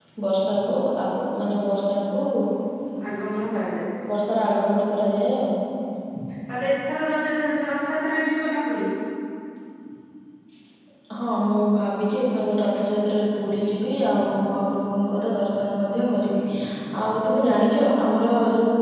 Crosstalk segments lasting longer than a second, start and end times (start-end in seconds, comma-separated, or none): none